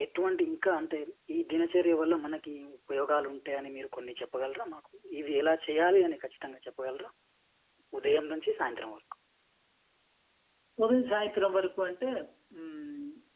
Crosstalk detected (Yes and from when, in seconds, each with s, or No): No